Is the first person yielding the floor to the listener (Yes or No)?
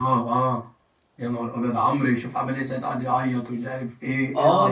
Yes